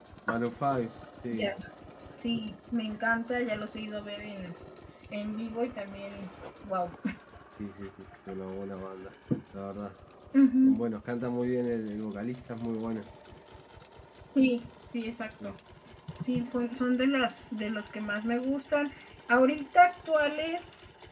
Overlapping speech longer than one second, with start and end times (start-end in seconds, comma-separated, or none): none